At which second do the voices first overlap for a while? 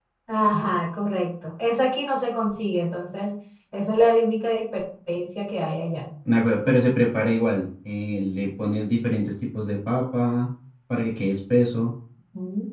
none

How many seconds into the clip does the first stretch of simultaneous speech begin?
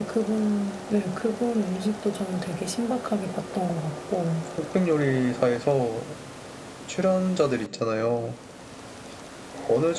none

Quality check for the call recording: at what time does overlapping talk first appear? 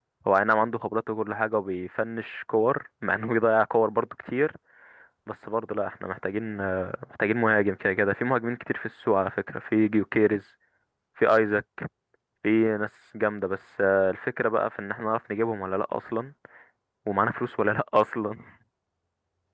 none

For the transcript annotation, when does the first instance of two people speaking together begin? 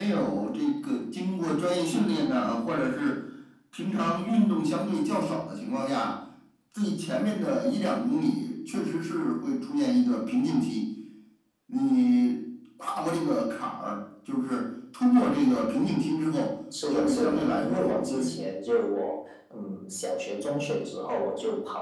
16.7 s

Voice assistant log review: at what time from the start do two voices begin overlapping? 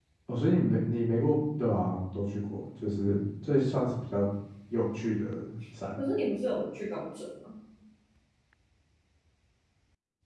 none

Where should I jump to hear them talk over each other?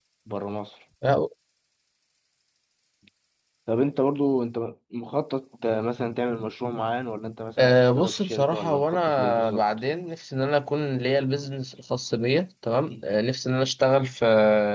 7.6 s

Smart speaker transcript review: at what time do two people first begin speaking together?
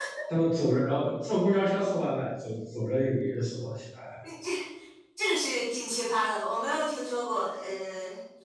none

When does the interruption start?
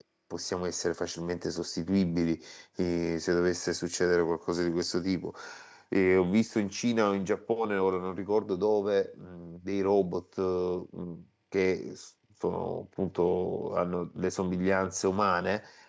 none

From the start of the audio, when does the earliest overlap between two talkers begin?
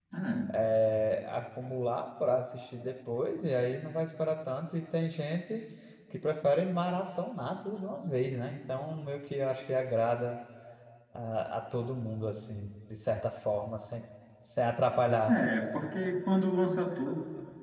none

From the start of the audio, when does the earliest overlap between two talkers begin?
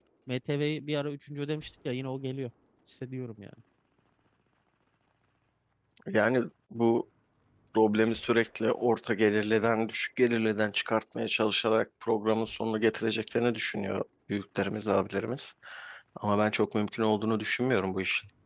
none

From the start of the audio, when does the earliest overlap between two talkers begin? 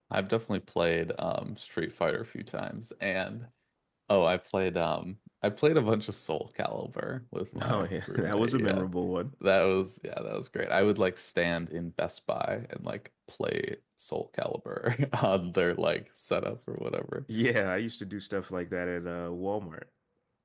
7.5 s

